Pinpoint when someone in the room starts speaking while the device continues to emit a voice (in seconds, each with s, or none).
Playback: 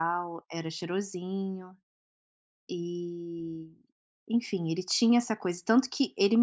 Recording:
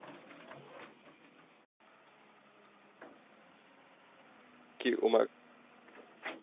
4.8 s